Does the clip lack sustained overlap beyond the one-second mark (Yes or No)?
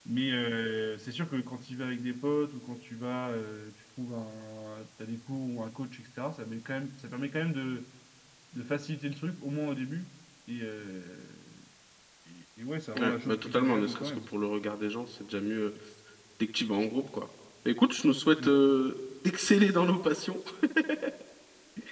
No